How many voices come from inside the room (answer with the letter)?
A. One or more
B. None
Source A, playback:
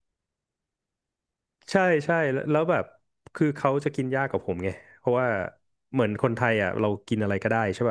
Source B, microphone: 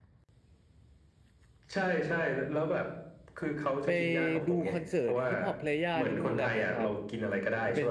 A